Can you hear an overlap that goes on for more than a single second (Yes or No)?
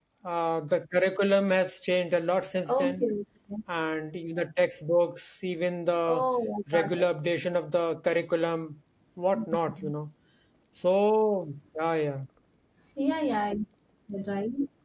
No